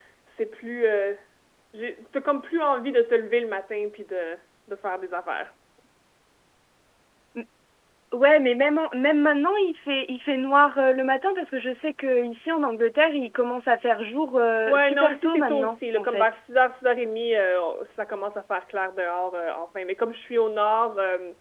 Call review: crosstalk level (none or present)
present